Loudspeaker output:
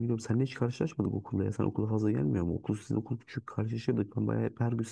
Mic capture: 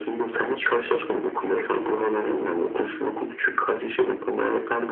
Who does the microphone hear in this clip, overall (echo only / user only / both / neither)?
echo only